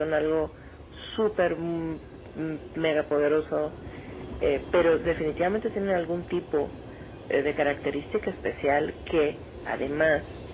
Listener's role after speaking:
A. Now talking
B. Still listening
B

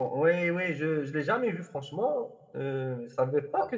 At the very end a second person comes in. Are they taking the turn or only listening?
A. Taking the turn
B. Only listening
A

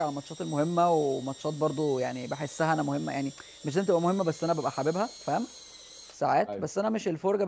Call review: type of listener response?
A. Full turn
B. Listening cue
B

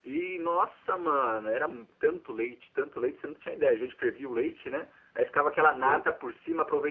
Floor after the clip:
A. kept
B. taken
A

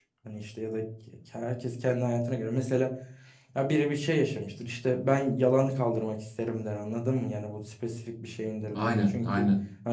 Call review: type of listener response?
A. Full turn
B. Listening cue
B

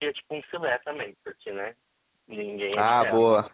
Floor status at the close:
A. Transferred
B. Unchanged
A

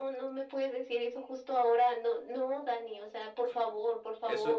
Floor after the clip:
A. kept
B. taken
B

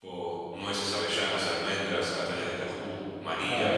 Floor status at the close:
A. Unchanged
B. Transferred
B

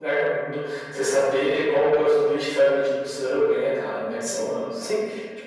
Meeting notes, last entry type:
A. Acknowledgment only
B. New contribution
B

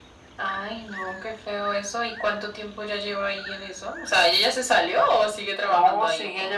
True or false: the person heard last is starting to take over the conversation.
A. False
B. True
B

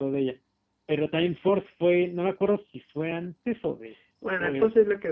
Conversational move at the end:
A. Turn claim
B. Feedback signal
A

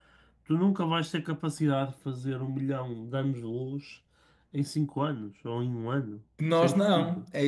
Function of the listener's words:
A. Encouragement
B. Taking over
B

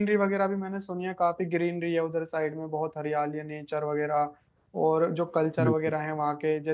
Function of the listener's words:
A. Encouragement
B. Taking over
A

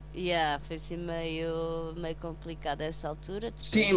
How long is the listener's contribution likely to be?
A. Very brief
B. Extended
B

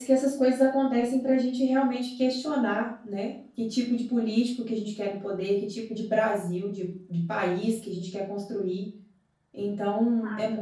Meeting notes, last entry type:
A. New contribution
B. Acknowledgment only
B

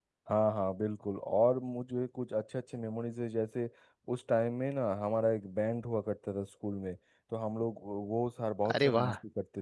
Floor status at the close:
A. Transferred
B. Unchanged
B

